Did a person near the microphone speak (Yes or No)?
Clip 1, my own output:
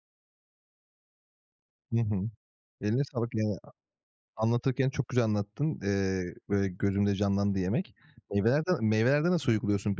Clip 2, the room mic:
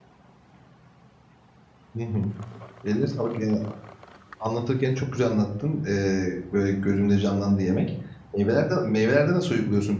No